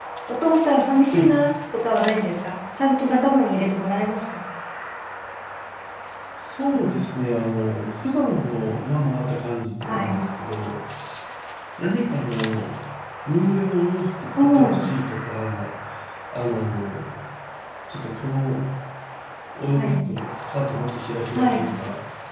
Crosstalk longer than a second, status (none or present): none